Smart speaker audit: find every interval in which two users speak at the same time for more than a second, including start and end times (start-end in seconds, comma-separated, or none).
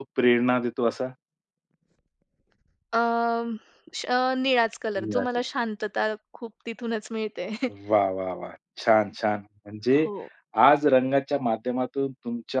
none